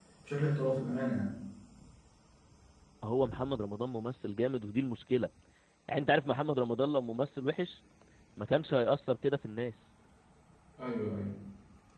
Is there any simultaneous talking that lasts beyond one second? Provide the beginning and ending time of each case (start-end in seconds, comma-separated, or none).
none